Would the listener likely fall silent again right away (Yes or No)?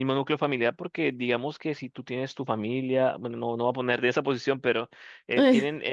Yes